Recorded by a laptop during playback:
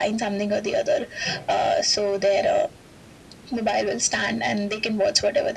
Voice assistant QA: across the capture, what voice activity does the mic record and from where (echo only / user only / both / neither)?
echo only